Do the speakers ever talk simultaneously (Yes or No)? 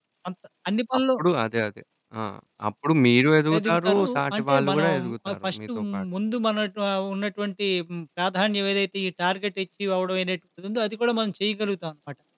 Yes